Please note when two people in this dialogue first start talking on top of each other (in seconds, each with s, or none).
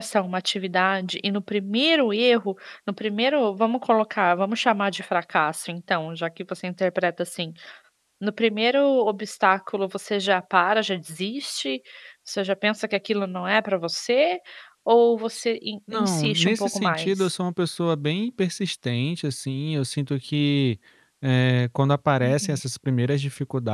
15.9 s